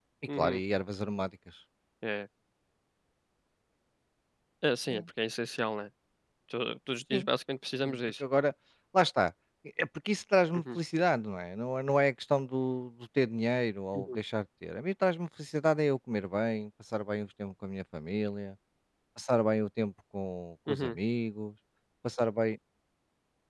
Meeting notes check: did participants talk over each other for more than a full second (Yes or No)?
No